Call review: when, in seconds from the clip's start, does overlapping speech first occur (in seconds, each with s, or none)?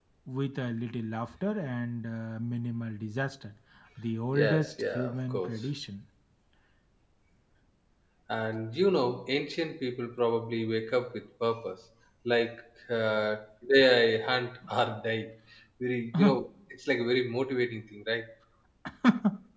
4.3 s